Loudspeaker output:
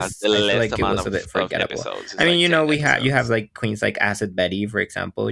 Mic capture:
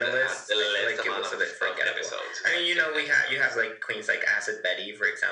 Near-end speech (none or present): none